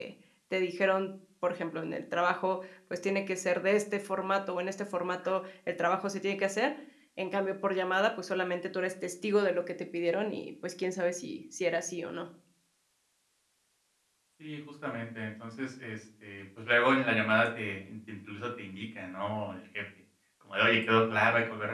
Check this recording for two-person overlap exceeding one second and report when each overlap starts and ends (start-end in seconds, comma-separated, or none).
none